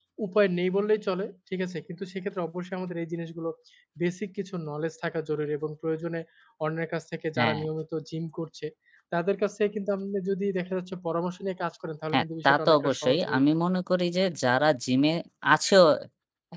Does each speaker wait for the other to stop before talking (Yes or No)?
No